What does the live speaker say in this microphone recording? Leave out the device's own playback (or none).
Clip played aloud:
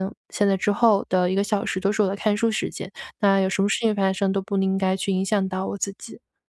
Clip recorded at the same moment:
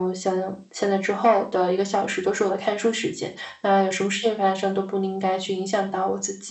none